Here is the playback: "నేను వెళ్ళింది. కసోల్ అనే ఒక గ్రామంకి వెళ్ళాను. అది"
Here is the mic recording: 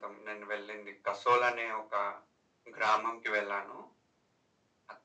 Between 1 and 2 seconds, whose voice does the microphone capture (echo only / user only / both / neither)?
echo only